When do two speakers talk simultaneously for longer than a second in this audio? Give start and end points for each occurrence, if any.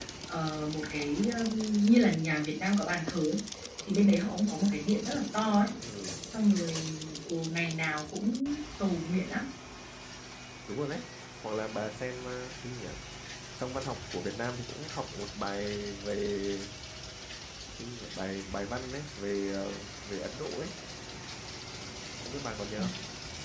none

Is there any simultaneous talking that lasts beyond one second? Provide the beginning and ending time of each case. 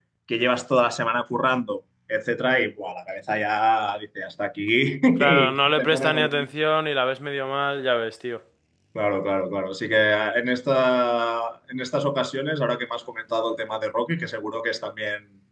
5.2-6.5

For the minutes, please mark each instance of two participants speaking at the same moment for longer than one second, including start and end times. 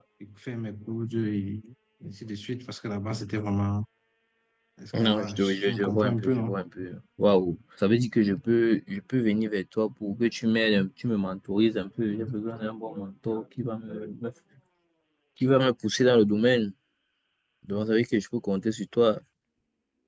5.0-6.5

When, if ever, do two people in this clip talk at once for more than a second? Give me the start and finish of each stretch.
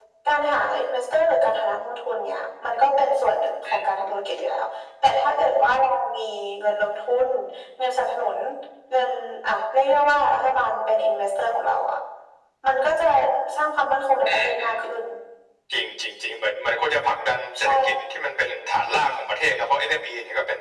none

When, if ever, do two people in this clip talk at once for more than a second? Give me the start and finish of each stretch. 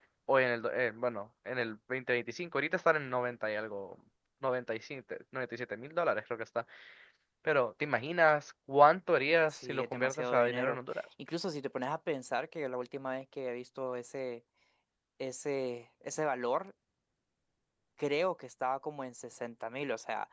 9.5-11.0

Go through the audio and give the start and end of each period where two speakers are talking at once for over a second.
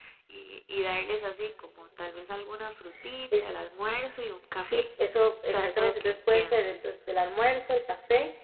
5.5-6.7

